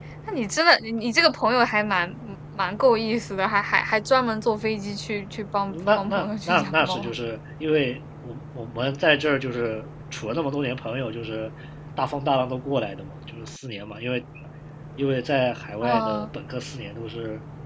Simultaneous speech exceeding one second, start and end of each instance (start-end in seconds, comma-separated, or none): 5.7-7.1